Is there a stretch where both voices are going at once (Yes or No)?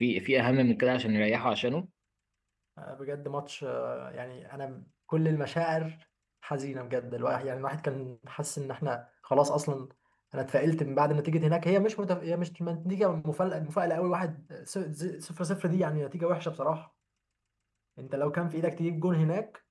No